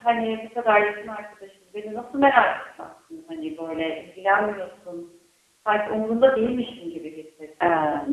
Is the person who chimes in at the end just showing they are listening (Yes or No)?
Yes